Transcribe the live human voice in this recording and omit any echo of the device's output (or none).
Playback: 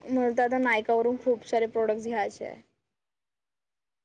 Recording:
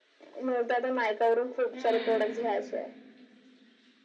हम्म.